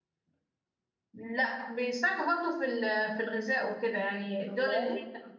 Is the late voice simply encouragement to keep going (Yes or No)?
Yes